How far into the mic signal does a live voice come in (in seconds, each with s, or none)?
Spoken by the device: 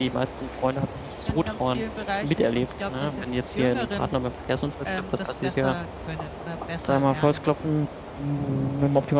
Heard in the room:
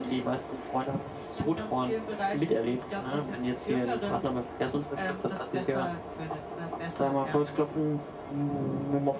none